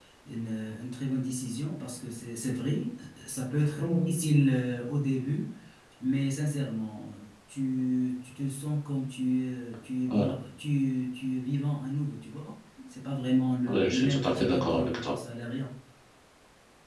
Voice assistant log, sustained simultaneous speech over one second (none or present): present